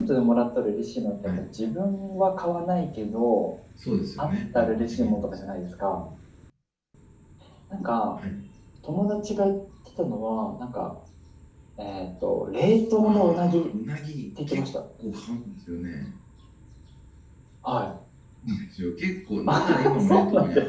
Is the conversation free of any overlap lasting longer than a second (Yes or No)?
No